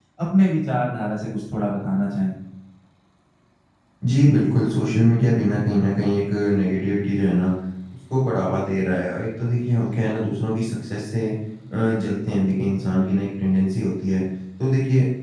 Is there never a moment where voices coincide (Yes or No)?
Yes